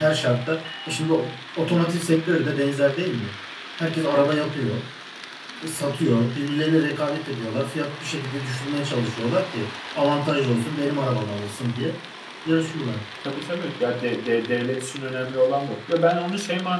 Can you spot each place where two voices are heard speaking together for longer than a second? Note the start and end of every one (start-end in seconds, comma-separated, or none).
none